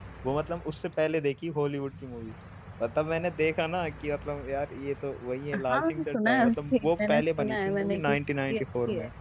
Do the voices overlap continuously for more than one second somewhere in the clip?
Yes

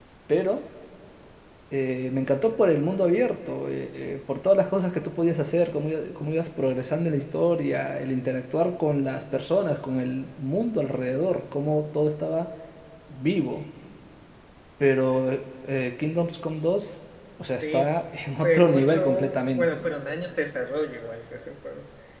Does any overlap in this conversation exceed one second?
Yes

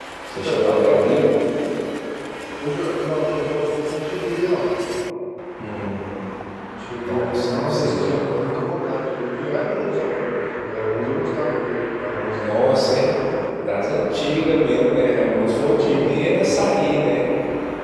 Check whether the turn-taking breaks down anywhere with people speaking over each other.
Yes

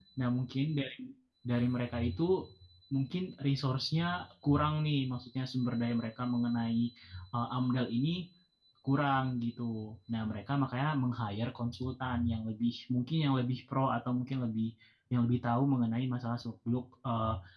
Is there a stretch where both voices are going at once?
No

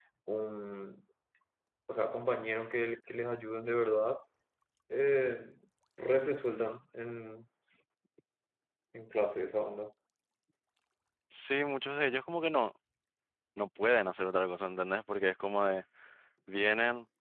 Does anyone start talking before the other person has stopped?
No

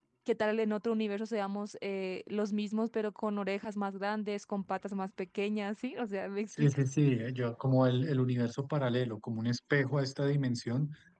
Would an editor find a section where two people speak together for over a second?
No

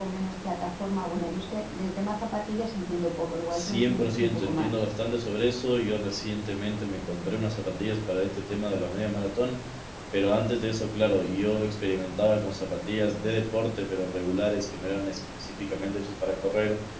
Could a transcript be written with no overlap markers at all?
No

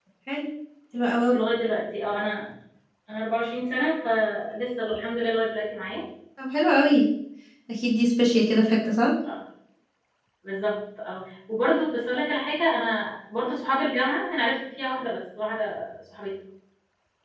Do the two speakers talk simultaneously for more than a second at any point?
No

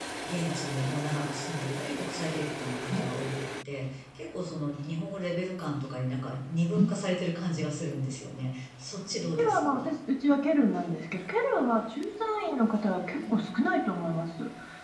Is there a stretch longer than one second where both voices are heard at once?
No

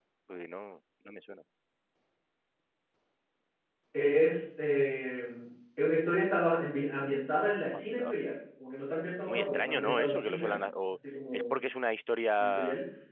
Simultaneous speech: Yes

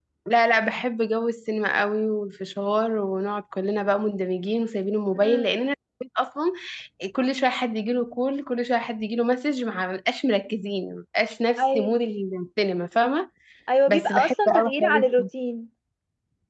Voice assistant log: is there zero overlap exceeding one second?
No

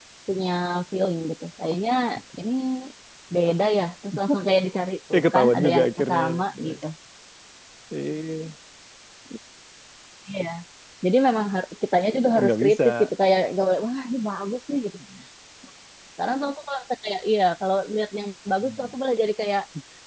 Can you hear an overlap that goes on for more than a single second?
Yes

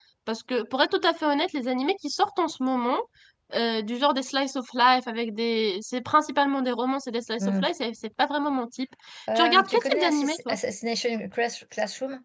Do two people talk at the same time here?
Yes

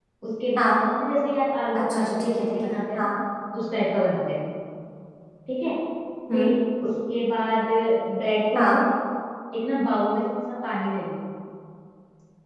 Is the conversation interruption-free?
No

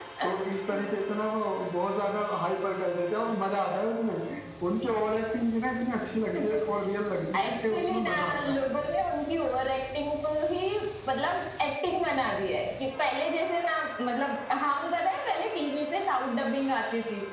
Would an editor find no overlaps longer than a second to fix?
No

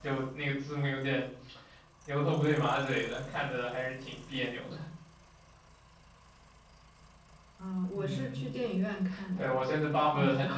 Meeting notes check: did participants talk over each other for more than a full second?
No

